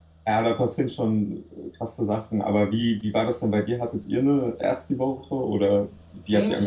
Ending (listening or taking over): taking over